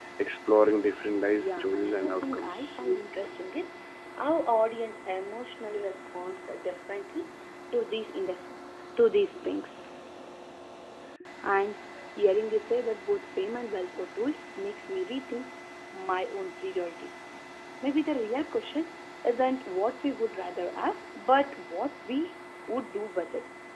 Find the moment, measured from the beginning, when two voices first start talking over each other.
1 s

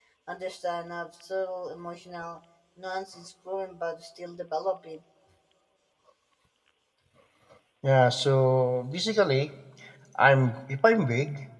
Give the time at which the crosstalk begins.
none

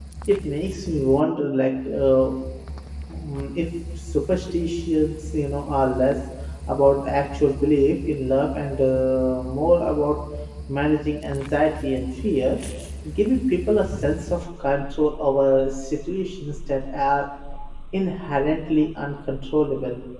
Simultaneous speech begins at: none

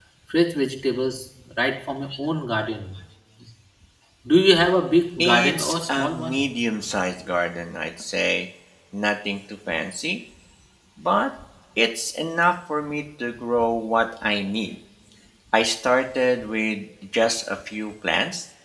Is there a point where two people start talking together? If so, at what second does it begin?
5 s

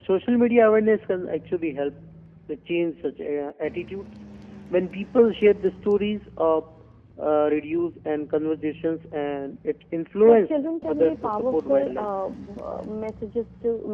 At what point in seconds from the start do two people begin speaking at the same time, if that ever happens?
10 s

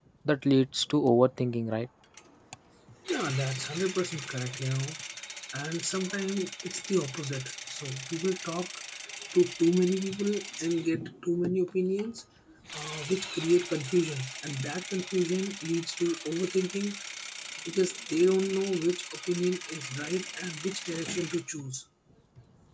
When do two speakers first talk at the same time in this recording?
none

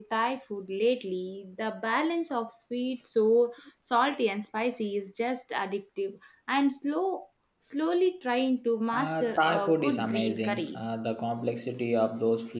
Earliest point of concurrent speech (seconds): 9 s

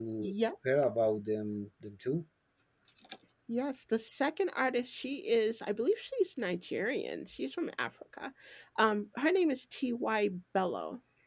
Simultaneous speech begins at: none

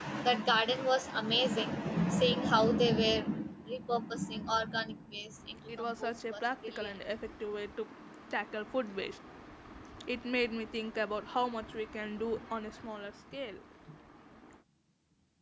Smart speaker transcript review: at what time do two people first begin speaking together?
6 s

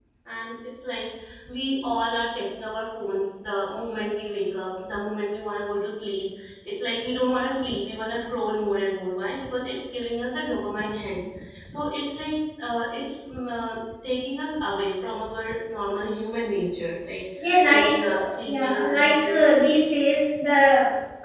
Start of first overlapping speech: 17 s

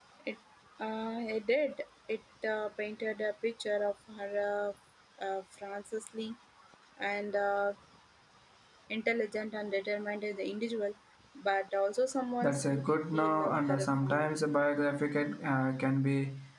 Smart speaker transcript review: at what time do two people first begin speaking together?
12 s

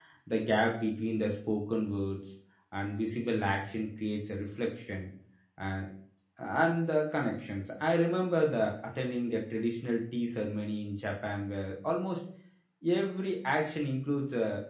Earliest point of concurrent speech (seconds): none

